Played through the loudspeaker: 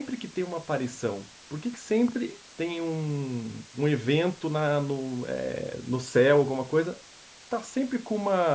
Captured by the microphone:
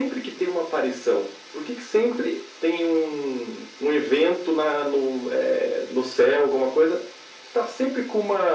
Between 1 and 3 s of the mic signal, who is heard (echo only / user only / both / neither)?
echo only